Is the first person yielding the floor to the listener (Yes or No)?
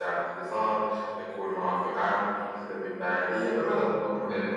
Yes